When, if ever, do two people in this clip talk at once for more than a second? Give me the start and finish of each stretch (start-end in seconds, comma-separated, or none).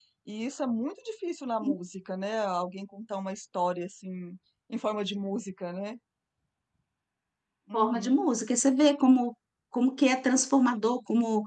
none